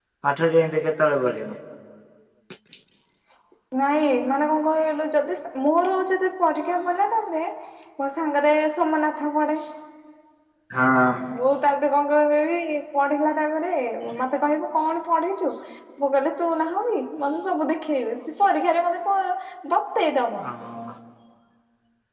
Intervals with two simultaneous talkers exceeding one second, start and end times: none

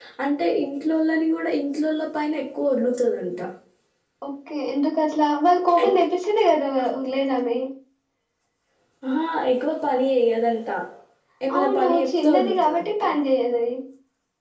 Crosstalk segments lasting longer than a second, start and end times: 11.6-12.9

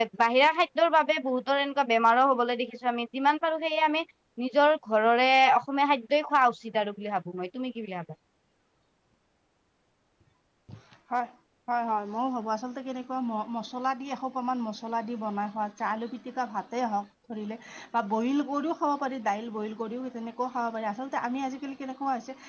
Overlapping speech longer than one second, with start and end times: none

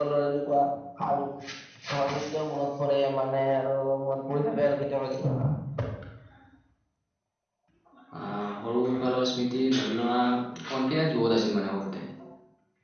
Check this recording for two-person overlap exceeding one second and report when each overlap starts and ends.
none

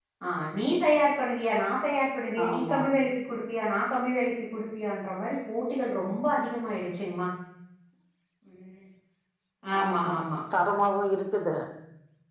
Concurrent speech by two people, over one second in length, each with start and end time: none

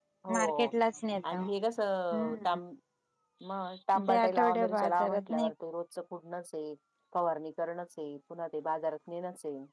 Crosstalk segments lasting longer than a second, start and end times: 4.1-5.5

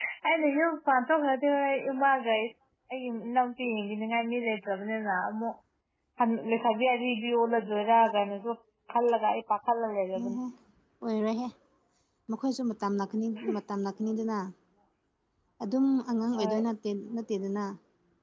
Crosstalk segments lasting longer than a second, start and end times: none

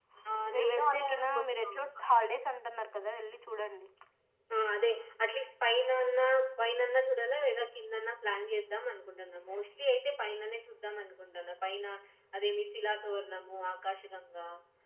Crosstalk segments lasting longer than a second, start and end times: 0.5-2.0

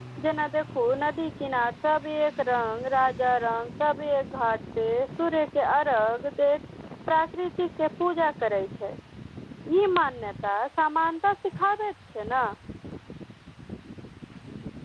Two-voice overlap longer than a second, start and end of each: none

